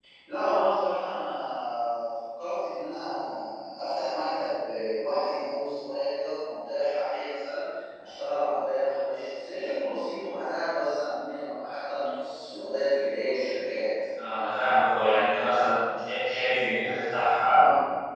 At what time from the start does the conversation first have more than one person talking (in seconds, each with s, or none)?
none